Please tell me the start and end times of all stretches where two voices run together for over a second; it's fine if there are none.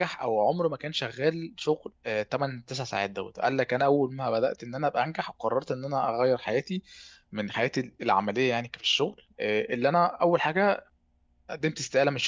none

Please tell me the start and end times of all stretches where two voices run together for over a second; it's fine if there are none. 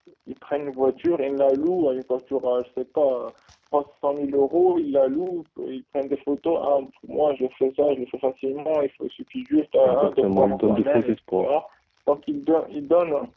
9.8-11.5

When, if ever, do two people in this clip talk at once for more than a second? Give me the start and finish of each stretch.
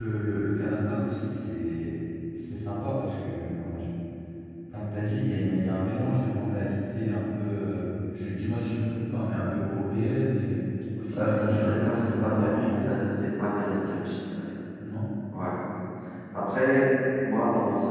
11.1-12.9

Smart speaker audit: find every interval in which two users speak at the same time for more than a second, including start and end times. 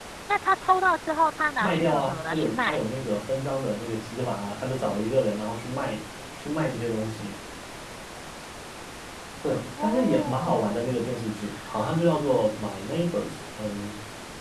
1.6-2.8, 9.5-11.0

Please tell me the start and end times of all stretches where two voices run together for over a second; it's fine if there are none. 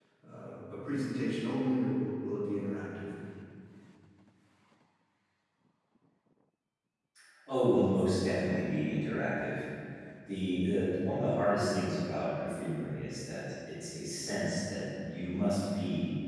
none

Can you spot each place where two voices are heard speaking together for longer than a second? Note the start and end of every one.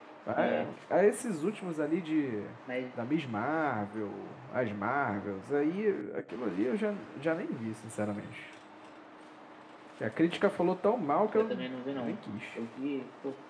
none

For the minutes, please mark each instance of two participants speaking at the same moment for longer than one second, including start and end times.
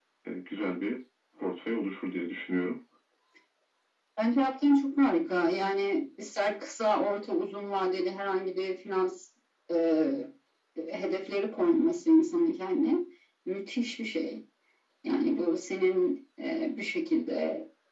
none

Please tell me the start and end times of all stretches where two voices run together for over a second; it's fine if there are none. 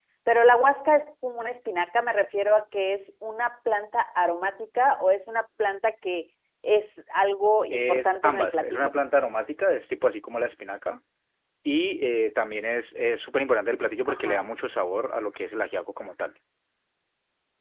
7.7-8.9

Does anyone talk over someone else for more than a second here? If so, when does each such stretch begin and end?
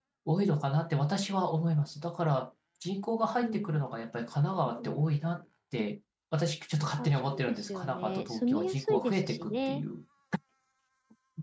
7.0-9.8

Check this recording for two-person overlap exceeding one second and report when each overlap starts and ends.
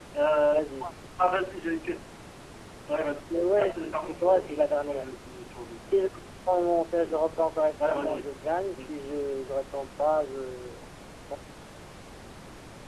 3.6-5.0

